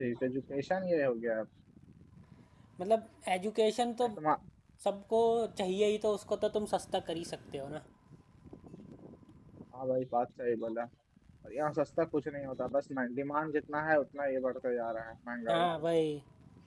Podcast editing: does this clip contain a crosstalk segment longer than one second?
No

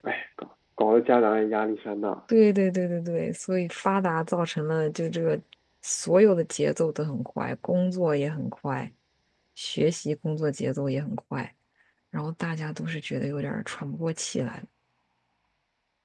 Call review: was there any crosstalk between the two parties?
No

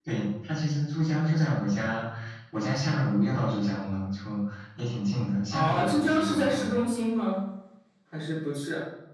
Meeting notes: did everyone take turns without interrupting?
No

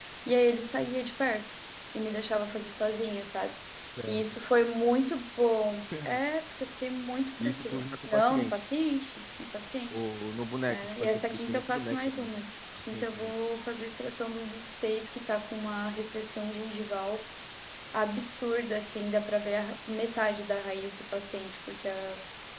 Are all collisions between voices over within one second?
No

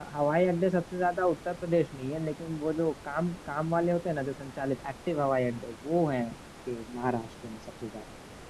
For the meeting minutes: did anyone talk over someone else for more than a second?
No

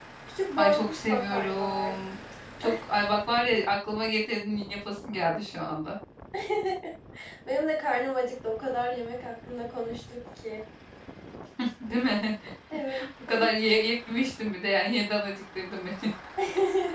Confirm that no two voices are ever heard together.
No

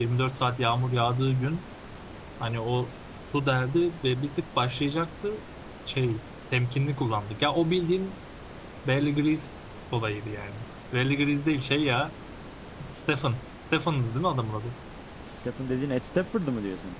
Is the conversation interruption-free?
Yes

